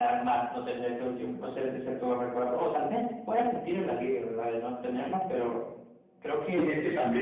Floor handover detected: Yes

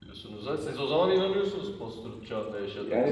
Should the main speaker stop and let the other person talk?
Yes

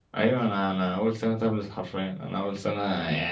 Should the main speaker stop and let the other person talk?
No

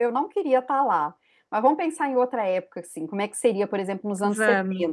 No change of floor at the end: Yes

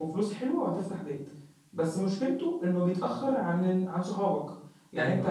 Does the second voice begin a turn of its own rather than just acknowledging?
No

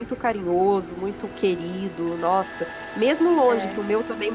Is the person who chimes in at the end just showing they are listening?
Yes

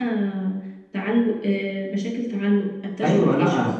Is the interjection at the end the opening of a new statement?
Yes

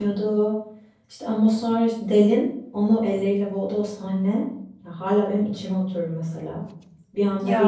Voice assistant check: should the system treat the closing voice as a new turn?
No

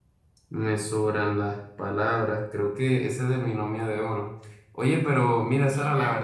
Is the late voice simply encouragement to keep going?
Yes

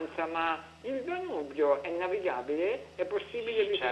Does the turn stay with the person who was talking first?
No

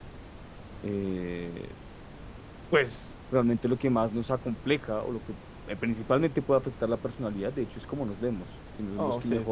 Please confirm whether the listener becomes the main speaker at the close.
Yes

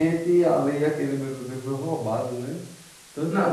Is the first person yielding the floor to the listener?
Yes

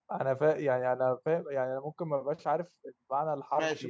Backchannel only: No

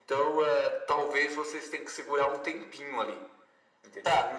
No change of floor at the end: No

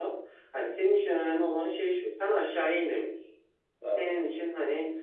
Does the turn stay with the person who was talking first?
Yes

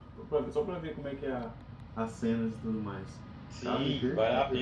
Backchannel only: No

